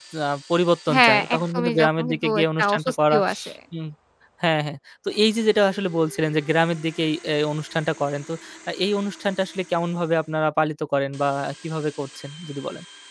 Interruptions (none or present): present